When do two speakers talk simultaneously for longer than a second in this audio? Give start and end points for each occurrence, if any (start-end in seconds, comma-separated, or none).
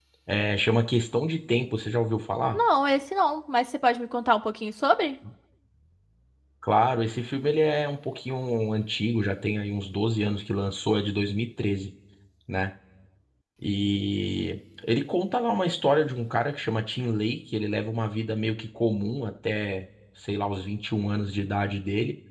none